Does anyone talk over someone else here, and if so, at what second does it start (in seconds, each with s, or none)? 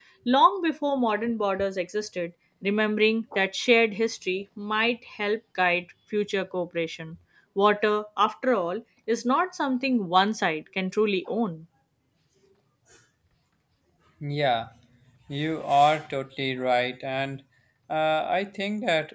none